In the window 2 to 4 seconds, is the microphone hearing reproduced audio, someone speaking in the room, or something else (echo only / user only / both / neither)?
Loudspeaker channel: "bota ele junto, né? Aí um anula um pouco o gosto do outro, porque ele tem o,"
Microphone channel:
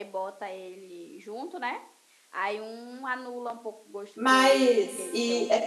echo only